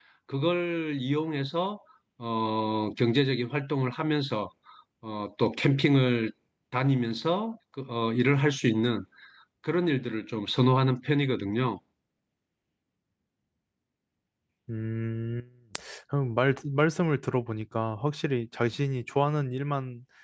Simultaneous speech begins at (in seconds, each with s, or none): none